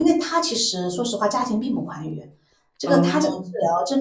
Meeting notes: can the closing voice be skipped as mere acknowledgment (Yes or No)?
Yes